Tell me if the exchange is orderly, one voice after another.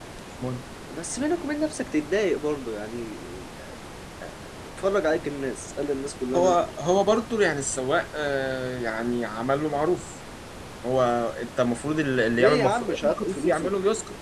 No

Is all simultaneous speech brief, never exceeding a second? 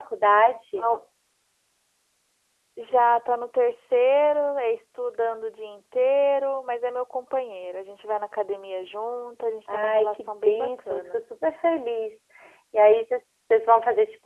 No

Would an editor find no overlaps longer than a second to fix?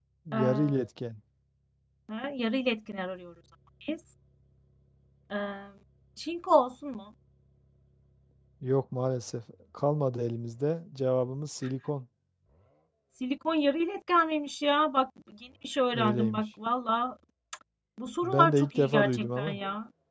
No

